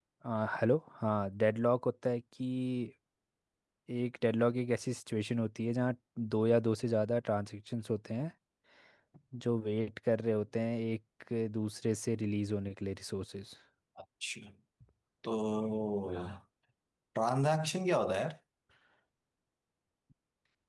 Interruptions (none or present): none